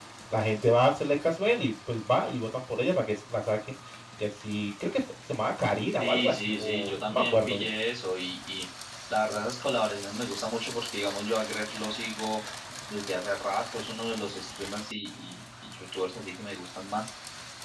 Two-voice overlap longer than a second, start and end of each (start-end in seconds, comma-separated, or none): 6.0-7.6